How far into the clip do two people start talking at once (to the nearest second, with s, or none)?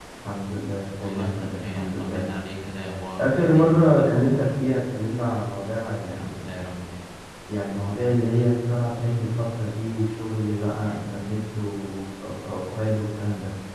1 s